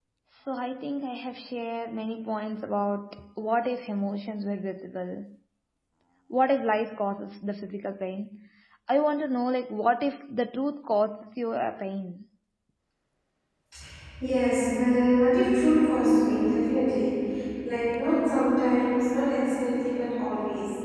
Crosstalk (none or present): none